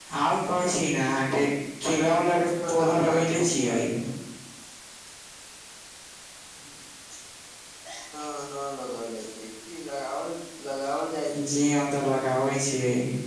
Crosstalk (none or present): present